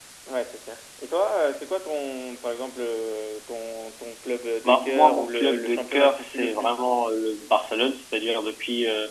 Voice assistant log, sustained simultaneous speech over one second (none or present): present